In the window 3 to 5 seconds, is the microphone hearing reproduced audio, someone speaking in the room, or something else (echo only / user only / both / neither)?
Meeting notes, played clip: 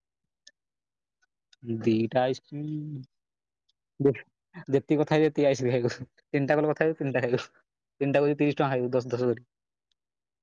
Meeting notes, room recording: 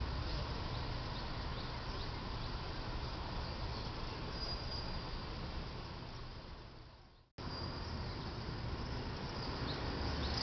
neither